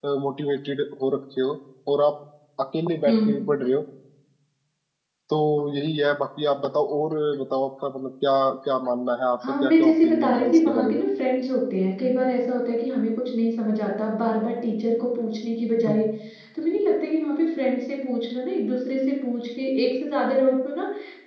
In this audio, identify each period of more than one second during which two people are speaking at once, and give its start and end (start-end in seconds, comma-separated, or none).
9.6-11.0